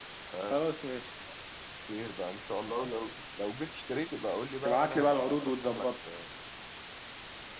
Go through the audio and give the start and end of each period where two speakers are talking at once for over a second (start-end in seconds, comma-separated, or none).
4.6-5.9